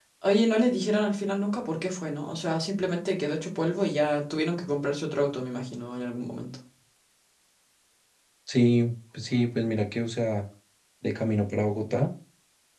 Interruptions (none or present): none